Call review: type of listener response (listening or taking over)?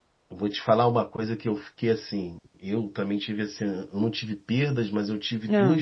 listening